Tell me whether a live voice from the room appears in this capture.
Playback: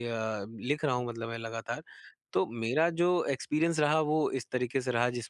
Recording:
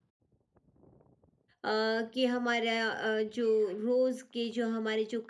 Yes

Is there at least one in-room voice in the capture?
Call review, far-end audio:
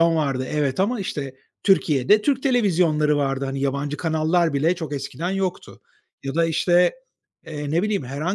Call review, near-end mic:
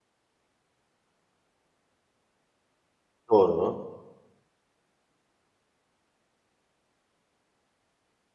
Yes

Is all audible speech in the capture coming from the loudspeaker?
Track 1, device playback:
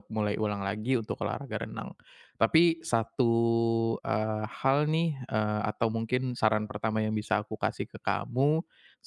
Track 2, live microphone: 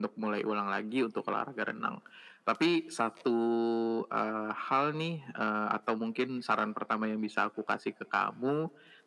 Yes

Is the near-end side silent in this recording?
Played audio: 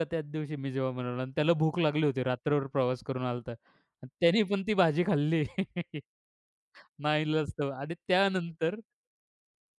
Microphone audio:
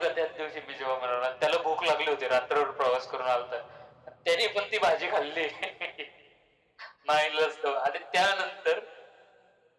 Yes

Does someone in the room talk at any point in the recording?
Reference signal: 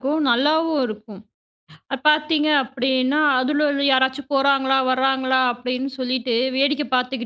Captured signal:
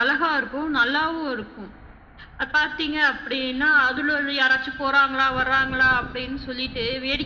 No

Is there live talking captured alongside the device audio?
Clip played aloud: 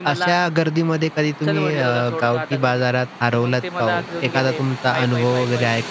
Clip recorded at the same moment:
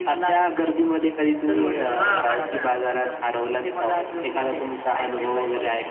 Yes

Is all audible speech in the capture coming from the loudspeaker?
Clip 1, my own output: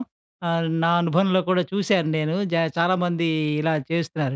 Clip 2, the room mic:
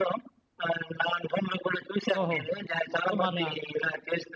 No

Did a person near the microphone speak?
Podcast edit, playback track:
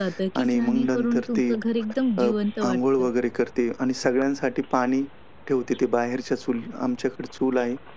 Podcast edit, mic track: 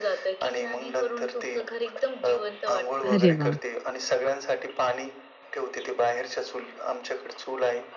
Yes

